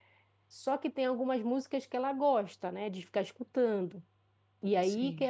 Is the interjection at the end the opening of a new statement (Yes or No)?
No